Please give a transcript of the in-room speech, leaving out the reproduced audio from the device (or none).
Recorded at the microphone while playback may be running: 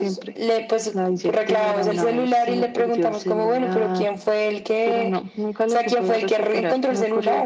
none